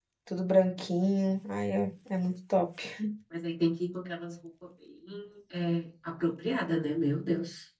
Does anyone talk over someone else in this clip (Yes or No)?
No